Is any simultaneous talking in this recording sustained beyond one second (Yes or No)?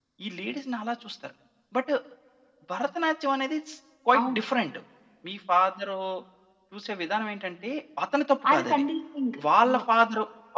No